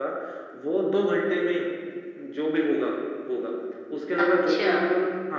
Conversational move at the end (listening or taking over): listening